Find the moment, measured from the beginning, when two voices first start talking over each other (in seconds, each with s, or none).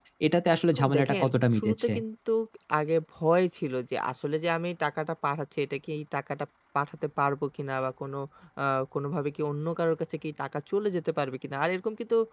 0.7 s